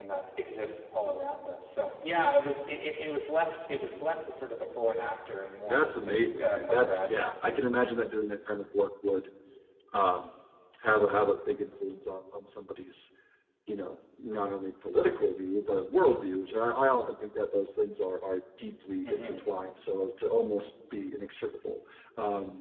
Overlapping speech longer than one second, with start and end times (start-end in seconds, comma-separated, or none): 5.7-7.3